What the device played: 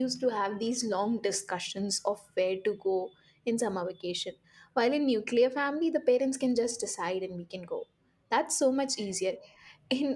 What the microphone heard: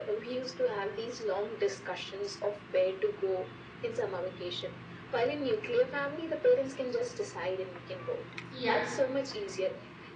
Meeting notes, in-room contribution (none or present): present